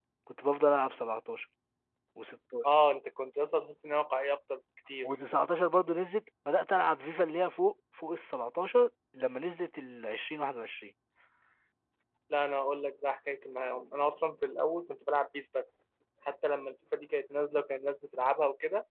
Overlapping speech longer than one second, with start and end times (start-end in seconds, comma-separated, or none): none